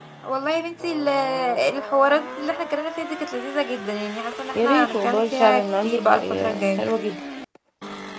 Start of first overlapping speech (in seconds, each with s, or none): 4.6 s